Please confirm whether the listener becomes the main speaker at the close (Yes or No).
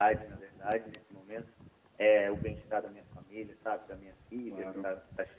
No